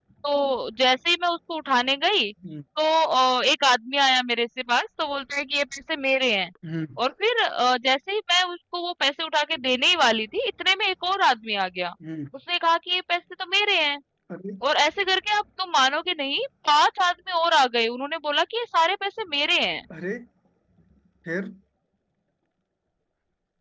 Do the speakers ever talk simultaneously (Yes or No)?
No